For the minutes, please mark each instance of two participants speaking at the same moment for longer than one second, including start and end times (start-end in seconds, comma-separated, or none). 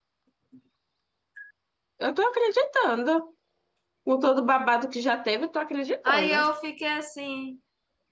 none